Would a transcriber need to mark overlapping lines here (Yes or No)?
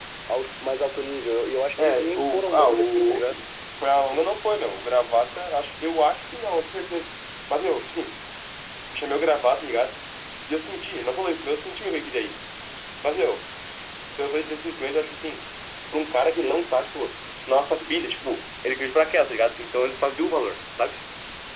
Yes